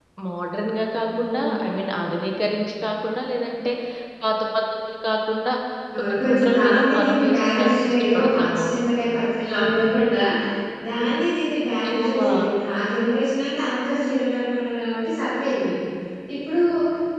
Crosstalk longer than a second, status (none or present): present